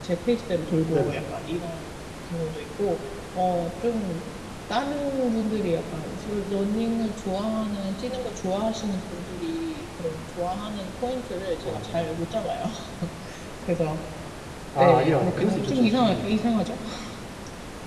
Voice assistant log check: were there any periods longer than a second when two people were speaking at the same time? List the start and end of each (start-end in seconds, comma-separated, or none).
14.8-16.4